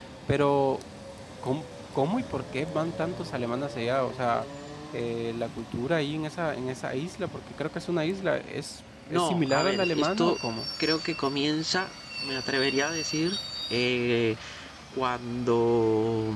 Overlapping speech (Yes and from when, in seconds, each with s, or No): Yes, from 9.1 s